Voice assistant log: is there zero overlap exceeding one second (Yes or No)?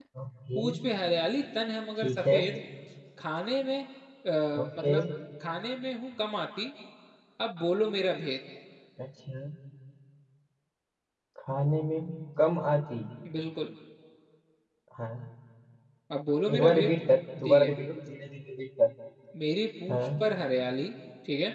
Yes